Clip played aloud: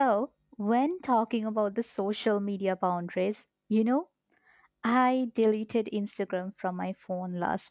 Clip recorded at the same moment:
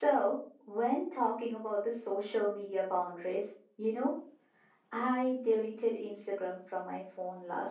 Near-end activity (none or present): none